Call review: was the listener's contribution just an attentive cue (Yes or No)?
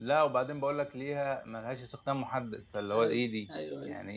No